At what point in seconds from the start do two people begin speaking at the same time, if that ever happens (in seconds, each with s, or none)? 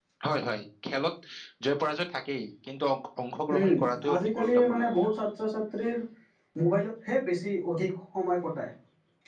3.6 s